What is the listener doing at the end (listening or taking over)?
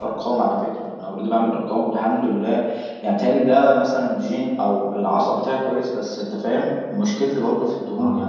listening